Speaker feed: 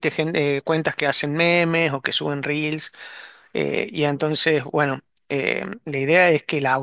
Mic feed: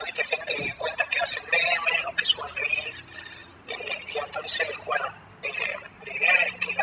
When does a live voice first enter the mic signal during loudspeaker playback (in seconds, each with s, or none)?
none